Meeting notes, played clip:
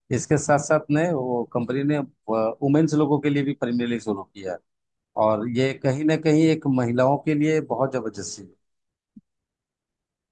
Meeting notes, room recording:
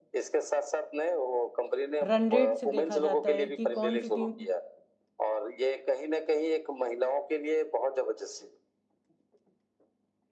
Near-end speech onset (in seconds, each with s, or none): 2.0 s